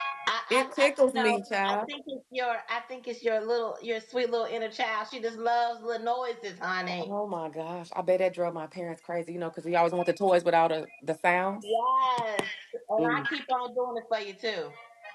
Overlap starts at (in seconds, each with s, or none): 0.5 s